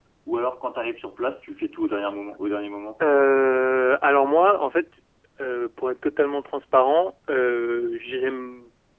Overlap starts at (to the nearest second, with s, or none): none